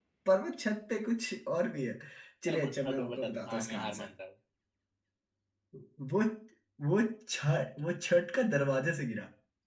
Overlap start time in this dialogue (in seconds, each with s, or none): 2.5 s